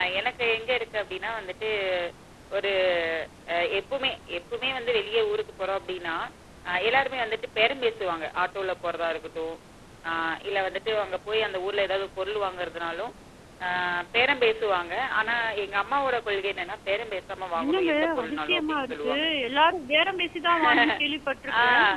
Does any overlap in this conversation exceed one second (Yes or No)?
Yes